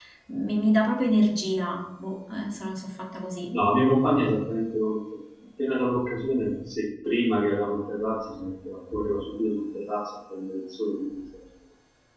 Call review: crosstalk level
none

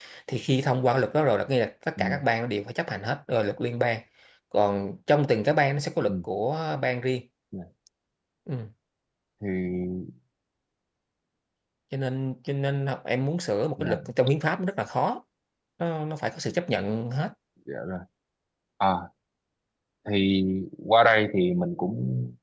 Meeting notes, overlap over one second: none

